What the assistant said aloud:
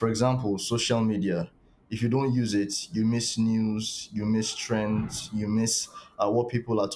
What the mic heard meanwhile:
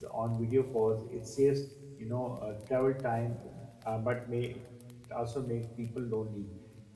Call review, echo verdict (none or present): none